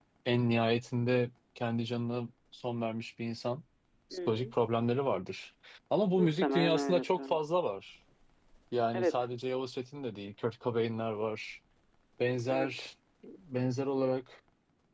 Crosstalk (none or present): present